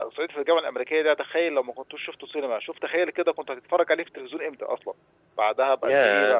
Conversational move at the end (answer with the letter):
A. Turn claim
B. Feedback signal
A